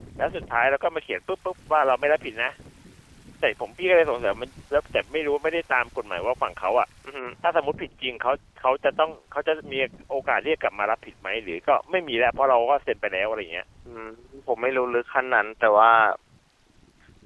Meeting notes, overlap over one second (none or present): none